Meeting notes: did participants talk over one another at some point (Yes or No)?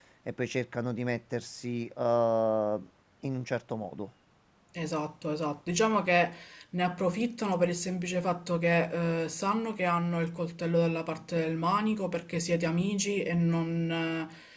No